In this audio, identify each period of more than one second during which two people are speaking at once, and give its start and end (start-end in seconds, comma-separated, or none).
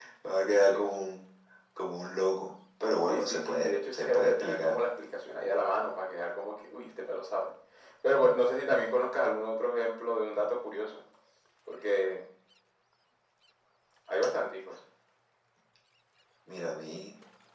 3.1-4.8